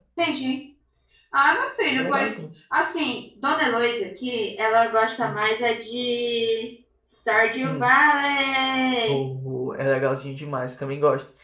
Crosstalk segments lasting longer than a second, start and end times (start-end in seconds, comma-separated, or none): none